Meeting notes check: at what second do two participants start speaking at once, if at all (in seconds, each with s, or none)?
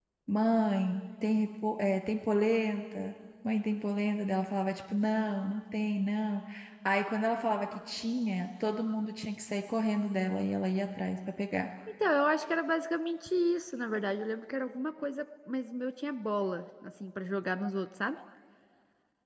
none